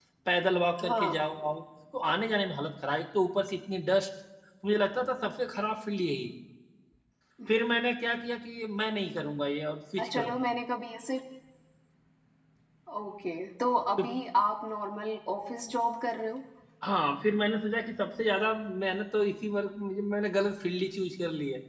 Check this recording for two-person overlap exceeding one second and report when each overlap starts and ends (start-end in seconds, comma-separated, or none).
none